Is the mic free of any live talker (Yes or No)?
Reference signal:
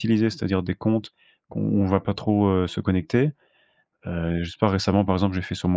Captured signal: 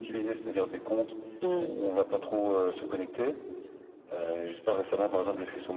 No